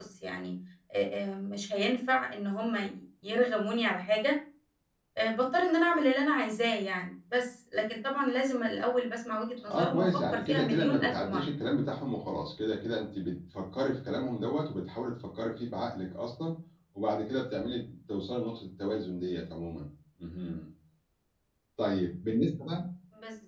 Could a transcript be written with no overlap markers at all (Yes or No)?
No